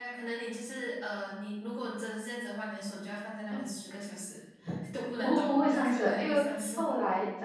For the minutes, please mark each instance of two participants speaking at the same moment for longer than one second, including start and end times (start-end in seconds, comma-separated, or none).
5.2-6.8